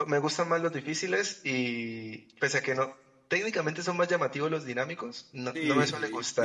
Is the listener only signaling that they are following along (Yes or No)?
No